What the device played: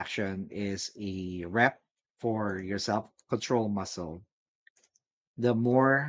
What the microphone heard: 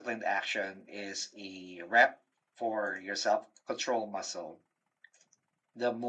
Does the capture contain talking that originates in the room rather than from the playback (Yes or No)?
No